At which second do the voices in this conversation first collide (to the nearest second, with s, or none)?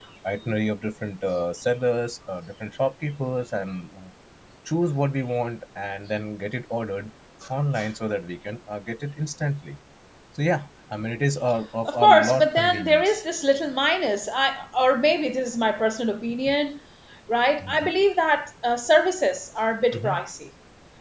12 s